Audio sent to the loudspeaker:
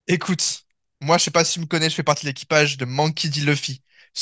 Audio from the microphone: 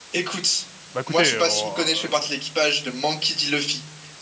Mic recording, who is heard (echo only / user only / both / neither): both